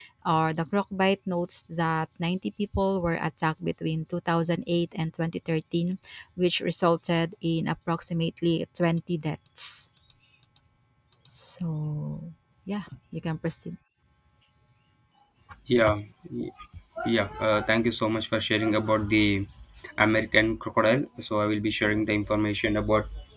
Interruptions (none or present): none